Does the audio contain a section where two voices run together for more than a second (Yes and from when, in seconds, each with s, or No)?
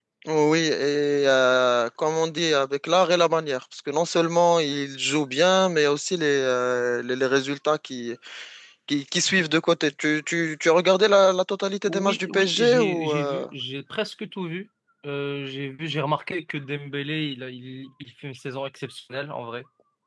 Yes, from 11.9 s